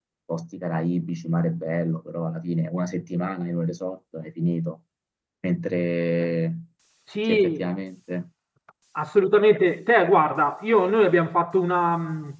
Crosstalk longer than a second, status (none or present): none